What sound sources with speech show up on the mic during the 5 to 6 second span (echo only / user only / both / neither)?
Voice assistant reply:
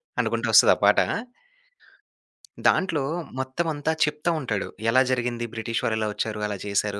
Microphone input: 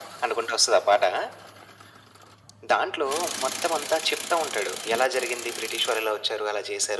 echo only